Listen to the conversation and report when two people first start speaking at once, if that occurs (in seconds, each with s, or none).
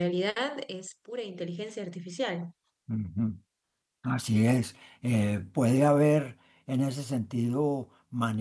none